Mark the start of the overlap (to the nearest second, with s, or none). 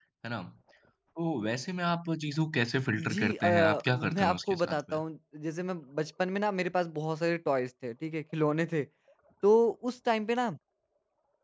3 s